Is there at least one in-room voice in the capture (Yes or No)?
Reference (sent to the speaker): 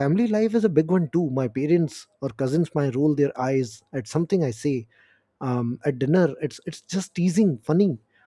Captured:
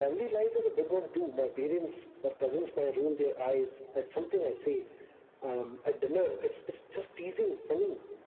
No